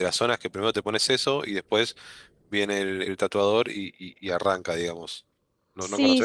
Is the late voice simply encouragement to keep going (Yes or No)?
No